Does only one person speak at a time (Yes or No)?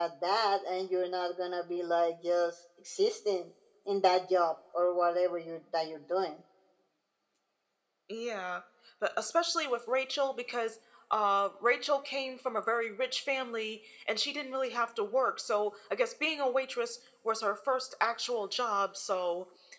Yes